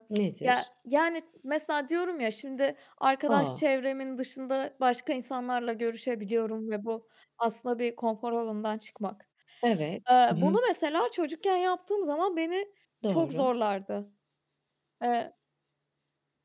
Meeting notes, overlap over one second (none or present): none